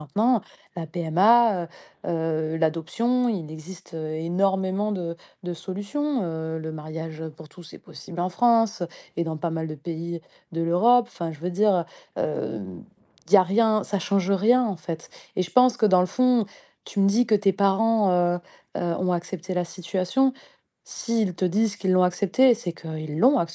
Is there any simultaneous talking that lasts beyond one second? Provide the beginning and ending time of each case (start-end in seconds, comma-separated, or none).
none